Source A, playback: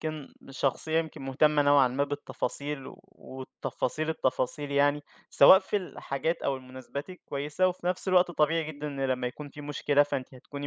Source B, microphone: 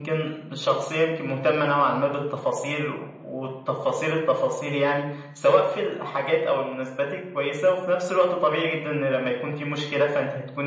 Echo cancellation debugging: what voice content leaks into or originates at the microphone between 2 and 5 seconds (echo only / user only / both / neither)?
echo only